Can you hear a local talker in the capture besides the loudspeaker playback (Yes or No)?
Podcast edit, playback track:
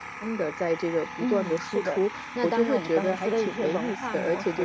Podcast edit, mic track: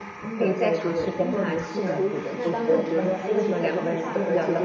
Yes